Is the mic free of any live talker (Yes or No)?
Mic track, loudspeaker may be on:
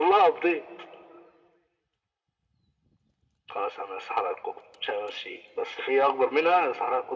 Yes